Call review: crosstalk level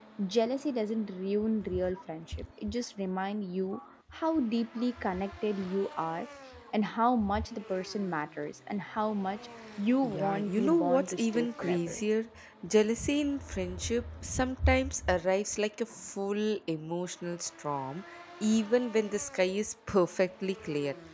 present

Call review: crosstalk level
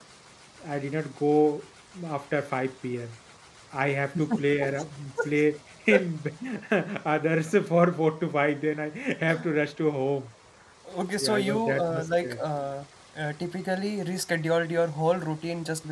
present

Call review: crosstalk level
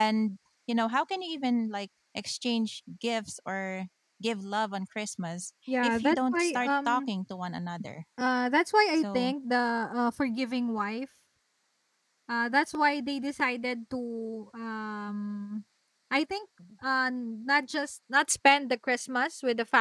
present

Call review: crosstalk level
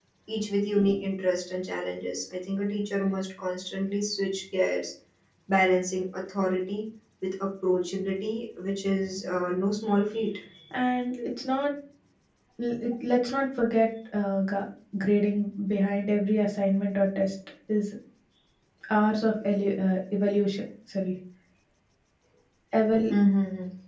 none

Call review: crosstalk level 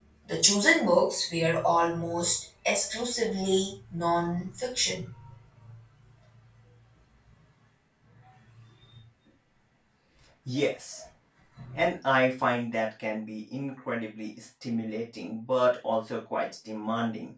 none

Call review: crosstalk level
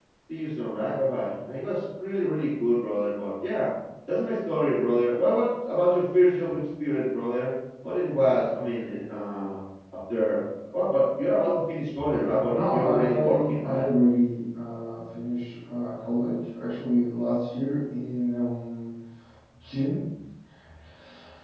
present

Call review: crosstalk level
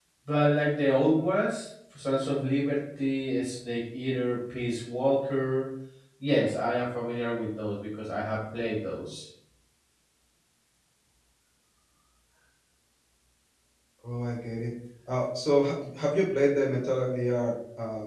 none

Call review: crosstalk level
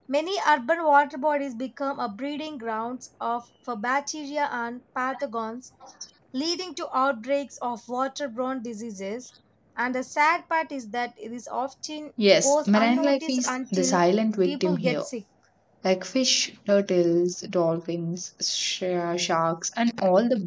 present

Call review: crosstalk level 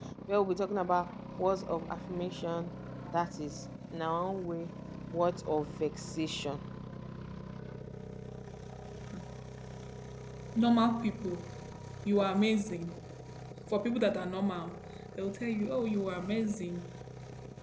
none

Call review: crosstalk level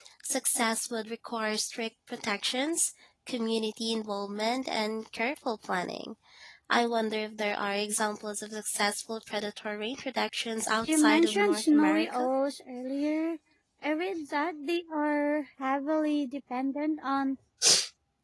present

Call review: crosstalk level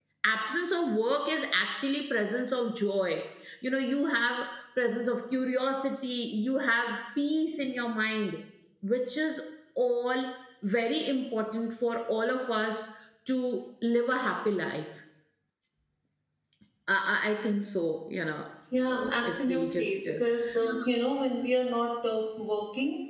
present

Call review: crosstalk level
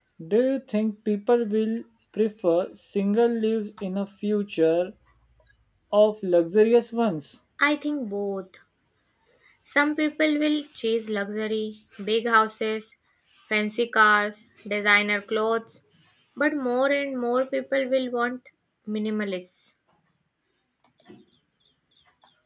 none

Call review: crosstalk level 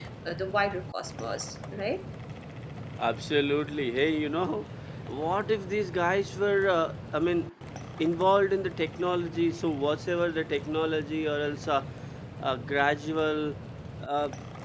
none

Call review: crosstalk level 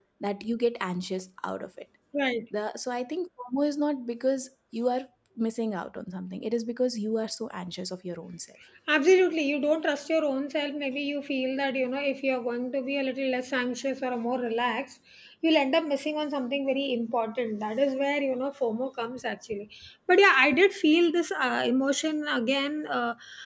none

